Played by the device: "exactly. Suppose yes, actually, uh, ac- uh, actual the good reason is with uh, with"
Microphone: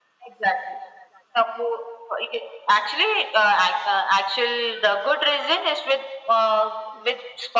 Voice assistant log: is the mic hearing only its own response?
Yes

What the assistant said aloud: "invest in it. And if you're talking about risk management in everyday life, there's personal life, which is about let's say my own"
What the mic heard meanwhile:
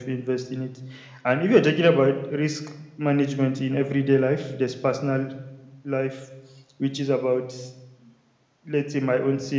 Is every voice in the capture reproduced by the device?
Yes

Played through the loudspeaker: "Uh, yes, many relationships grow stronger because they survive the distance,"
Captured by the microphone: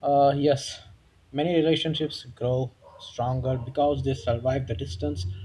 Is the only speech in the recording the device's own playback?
Yes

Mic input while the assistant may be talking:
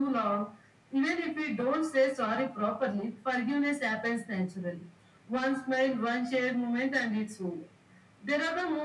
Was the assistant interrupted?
No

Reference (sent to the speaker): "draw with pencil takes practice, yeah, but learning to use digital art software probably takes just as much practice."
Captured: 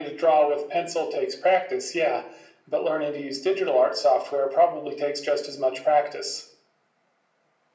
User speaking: No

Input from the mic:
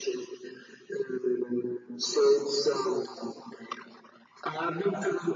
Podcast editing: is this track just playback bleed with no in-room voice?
Yes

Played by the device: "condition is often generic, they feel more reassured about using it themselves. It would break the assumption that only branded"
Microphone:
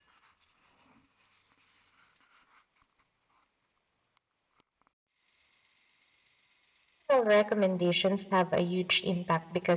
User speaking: Yes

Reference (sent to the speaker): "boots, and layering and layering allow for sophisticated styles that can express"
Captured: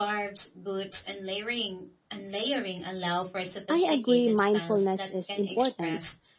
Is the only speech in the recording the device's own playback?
No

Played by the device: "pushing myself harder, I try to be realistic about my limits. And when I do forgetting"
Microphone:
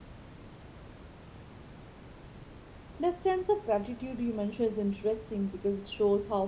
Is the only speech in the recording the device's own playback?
No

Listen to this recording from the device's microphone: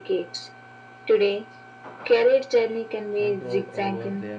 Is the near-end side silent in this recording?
No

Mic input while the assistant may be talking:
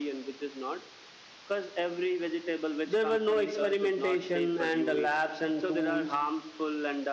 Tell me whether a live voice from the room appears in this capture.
Yes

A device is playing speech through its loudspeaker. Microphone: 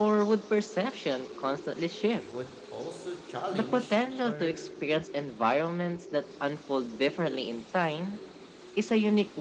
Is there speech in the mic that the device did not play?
Yes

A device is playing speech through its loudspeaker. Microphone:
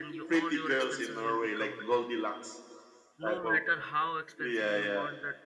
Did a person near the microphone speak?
Yes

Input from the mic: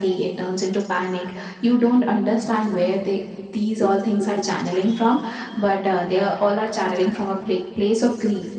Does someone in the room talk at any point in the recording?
No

